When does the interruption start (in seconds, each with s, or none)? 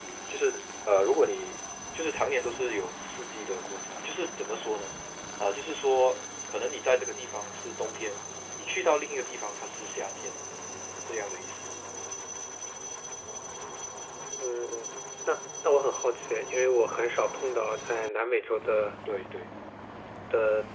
none